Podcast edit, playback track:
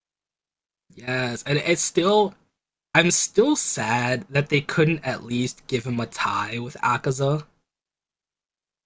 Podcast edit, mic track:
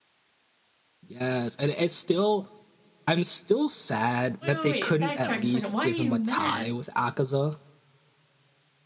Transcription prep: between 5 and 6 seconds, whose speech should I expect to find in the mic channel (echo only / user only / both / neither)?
both